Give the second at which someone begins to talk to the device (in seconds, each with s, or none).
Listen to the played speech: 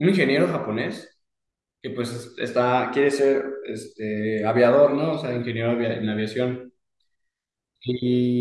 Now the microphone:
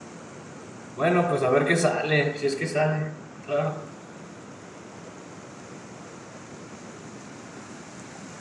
1.0 s